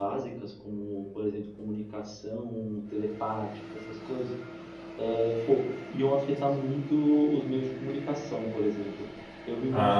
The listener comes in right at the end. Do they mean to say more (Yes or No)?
No